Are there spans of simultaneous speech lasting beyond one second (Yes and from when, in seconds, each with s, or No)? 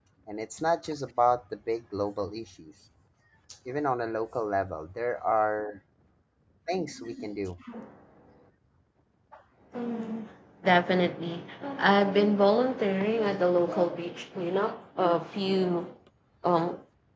No